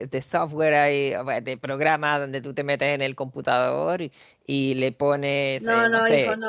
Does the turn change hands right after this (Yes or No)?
Yes